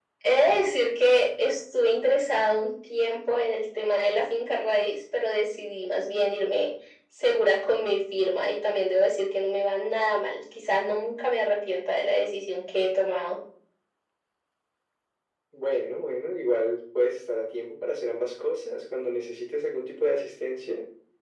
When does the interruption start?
none

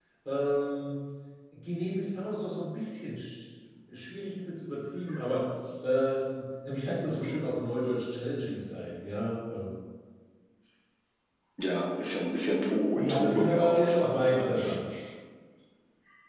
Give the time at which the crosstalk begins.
13 s

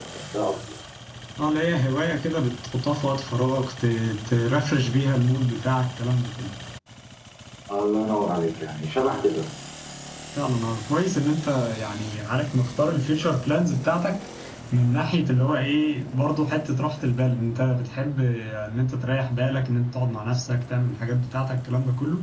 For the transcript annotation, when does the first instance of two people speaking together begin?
none

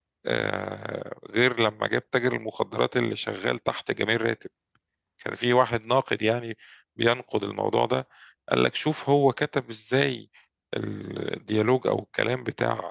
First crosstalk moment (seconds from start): none

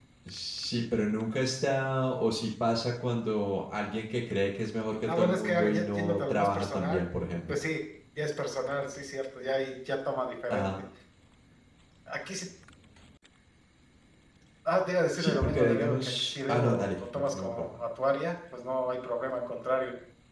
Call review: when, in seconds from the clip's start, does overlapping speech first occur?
5 s

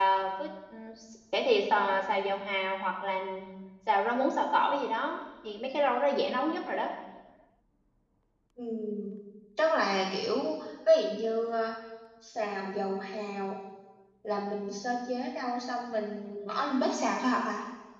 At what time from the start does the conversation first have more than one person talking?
none

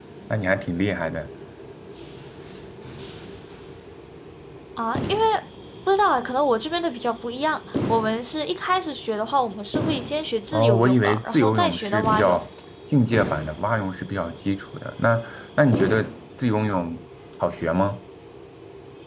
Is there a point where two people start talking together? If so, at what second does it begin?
11 s

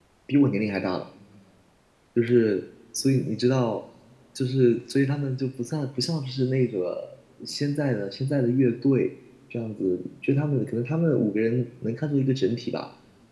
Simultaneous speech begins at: none

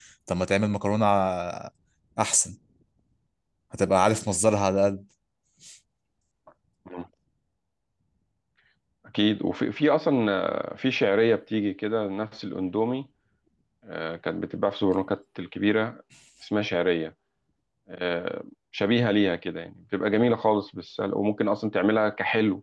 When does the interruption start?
none

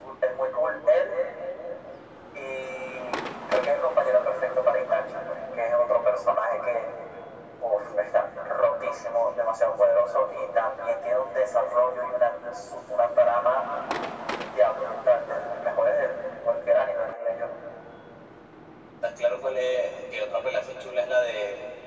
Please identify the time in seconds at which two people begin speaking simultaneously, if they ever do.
none

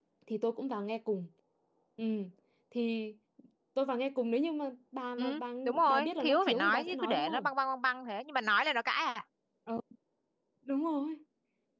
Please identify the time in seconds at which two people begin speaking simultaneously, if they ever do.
5 s

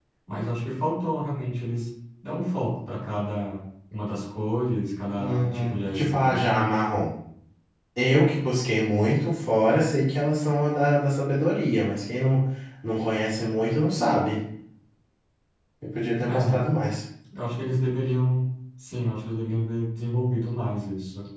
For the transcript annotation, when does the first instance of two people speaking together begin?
5 s

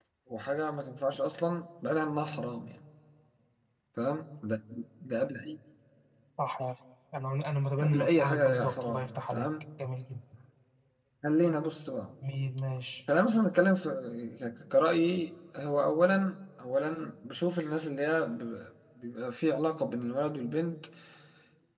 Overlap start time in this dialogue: 8 s

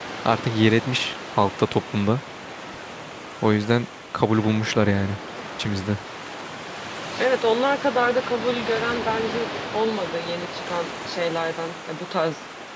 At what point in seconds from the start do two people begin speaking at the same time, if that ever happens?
none

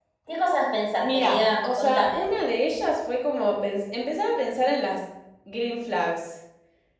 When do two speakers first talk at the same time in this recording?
1 s

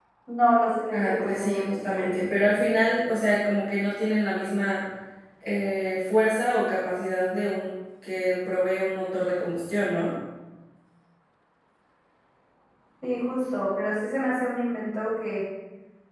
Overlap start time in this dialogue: 1 s

